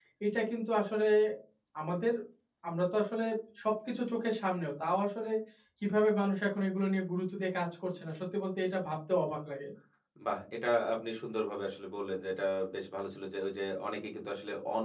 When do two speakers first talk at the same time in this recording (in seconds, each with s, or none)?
none